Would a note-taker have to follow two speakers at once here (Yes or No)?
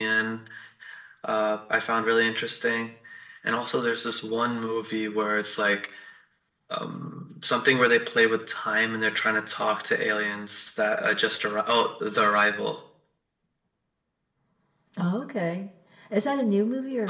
No